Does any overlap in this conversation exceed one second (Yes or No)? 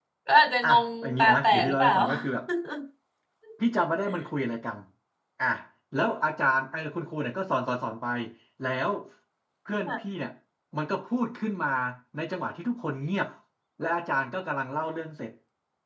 Yes